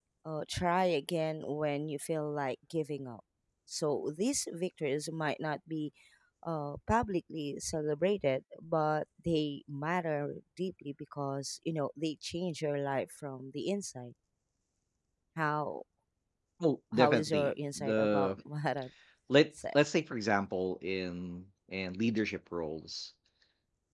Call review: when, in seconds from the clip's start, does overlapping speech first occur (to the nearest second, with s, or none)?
17 s